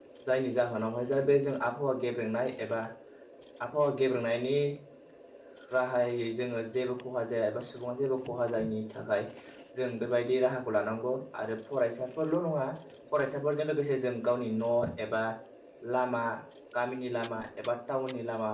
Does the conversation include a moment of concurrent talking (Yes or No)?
No